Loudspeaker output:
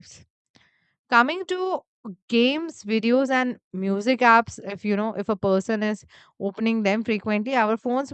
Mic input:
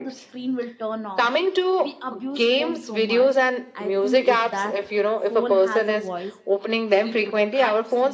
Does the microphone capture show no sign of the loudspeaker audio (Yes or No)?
No